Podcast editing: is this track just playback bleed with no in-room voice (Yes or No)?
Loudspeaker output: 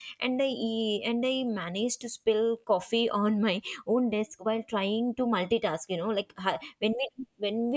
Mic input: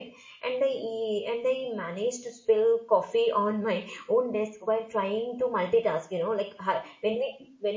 Yes